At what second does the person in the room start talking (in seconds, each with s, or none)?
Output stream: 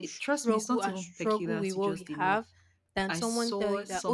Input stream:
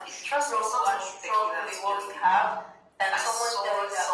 none